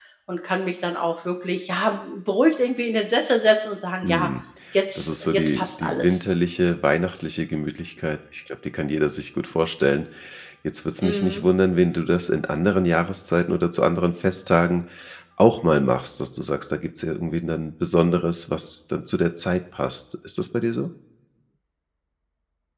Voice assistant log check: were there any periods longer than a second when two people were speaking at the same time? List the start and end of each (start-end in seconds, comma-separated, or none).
5.0-6.2